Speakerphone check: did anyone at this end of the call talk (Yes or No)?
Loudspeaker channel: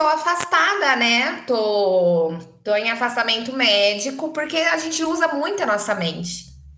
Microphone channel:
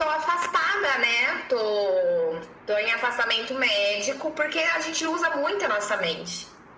No